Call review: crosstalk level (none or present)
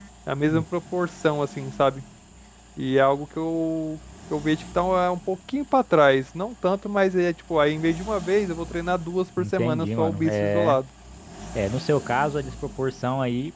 present